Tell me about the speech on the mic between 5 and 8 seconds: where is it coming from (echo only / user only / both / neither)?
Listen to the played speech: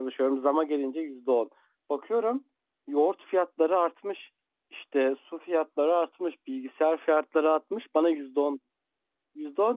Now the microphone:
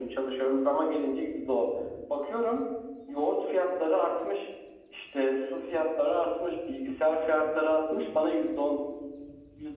echo only